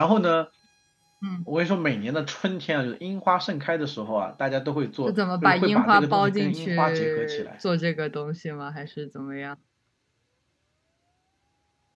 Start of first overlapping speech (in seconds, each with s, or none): 5.1 s